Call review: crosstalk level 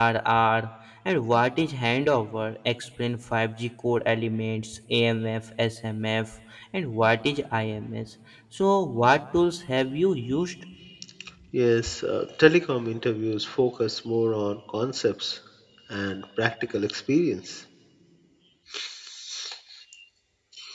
none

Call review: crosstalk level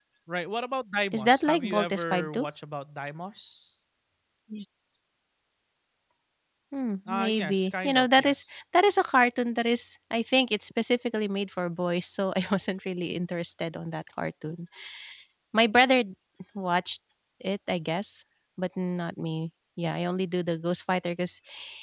present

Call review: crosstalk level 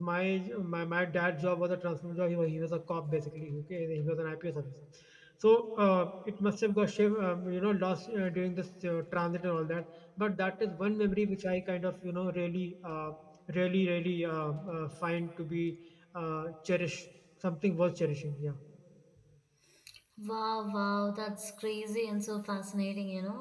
none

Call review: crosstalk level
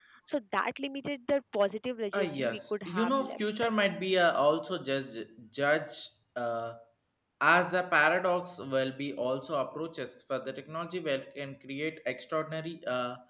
present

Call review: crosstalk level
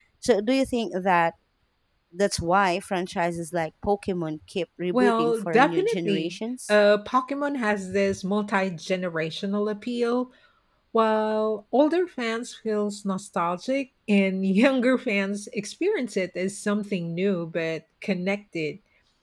present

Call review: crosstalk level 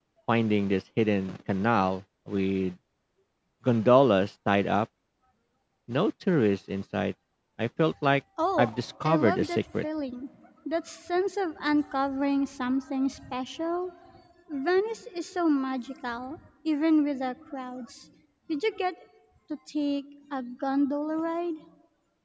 present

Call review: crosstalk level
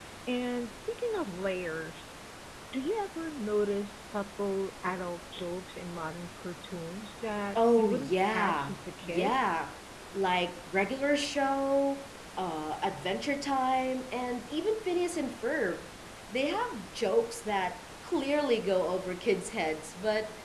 present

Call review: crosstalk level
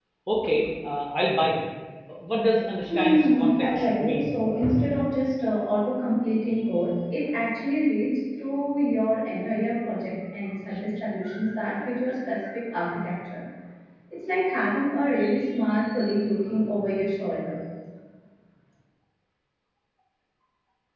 present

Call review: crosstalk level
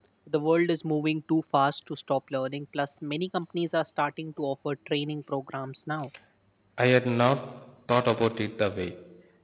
none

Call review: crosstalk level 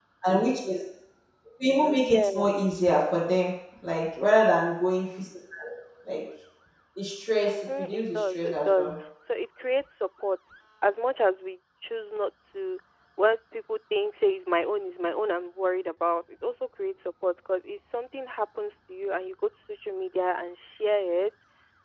present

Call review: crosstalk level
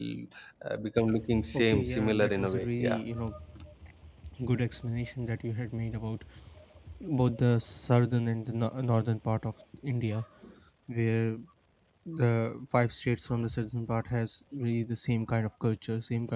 present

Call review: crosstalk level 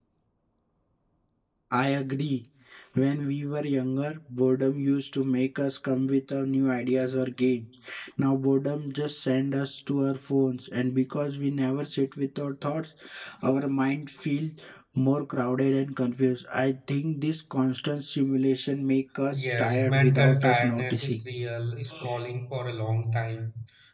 present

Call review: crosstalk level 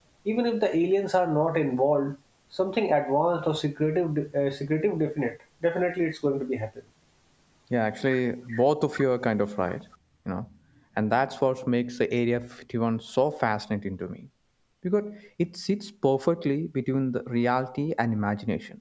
none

